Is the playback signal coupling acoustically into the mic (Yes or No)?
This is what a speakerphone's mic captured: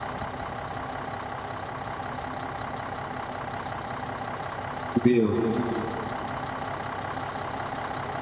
No